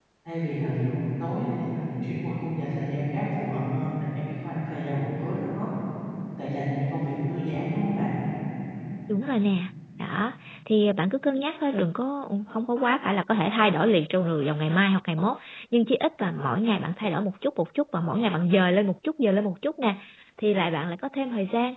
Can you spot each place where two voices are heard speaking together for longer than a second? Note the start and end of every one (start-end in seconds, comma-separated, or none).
none